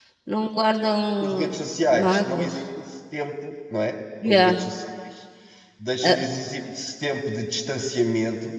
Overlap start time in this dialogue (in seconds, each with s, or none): 1.2 s